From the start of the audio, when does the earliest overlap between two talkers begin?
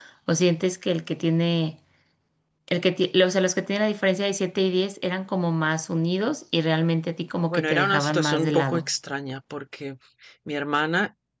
7.5 s

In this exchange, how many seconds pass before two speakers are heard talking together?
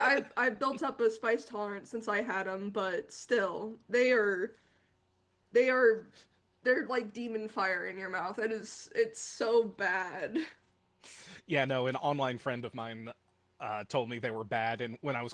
none

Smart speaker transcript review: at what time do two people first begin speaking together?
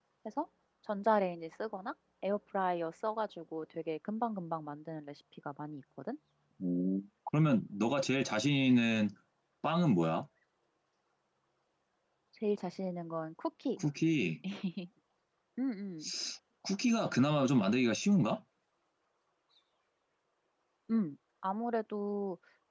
none

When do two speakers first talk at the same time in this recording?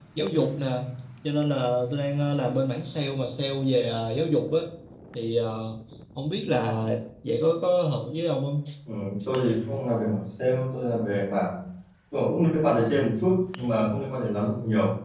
none

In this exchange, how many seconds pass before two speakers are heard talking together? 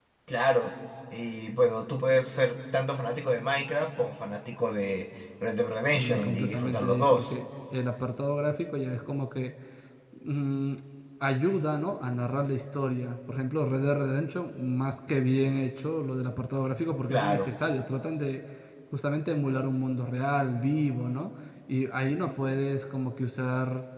5.9 s

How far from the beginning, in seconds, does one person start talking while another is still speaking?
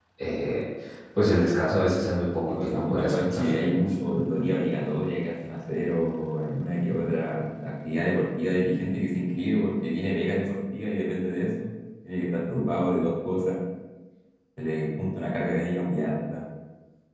2.5 s

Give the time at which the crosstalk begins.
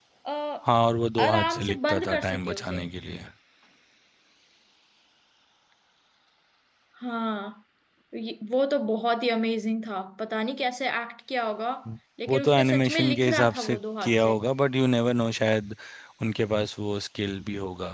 1.2 s

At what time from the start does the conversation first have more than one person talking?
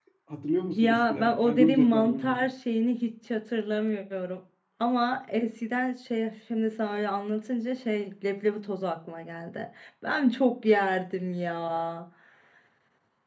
0.7 s

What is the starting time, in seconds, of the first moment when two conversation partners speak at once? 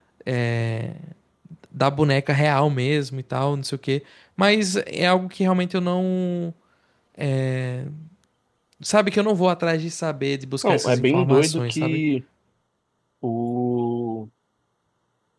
10.6 s

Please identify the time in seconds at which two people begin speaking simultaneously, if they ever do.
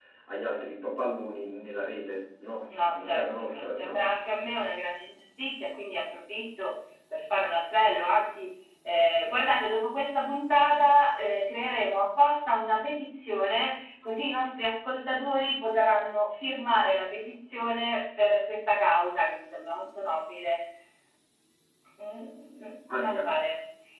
2.9 s

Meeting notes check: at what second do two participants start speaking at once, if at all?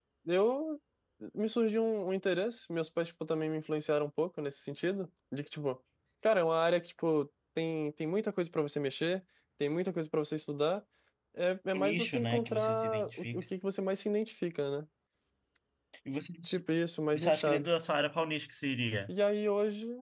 11.7 s

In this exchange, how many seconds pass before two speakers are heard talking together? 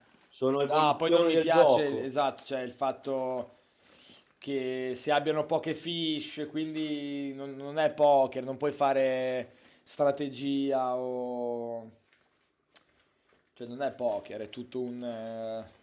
0.6 s

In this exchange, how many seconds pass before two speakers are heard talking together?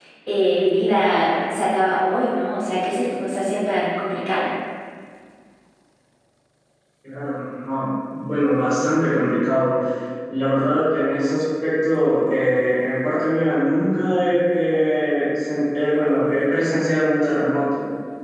none

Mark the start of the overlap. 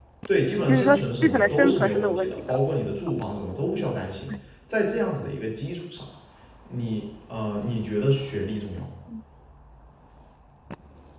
0.7 s

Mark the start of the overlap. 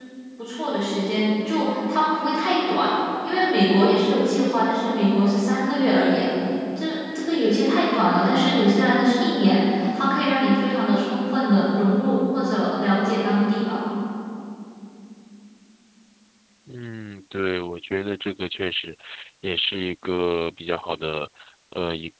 none

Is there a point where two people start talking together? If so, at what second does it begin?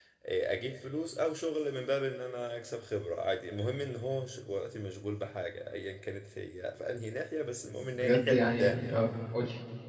7.7 s

